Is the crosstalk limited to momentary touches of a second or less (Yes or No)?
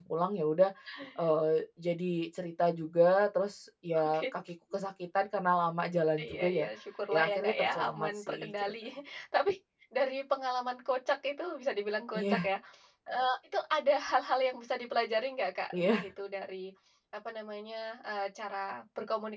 No